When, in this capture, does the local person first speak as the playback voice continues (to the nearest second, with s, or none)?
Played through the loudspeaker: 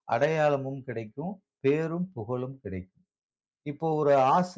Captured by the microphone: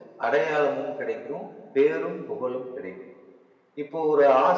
none